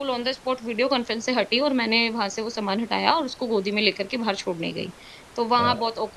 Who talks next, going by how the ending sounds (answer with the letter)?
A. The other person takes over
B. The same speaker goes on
B